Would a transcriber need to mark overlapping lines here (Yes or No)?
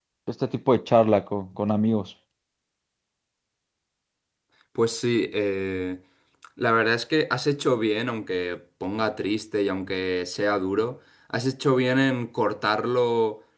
No